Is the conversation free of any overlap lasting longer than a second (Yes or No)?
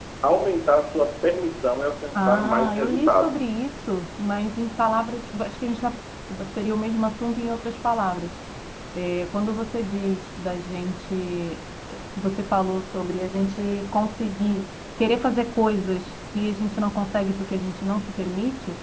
No